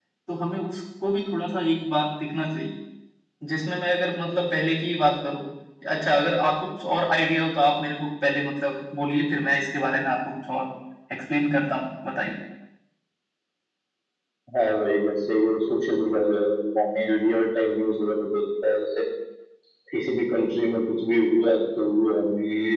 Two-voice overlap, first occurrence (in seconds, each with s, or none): none